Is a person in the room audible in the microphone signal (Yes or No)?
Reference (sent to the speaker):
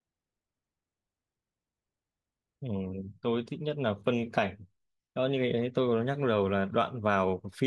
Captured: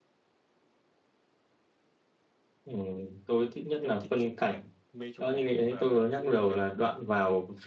Yes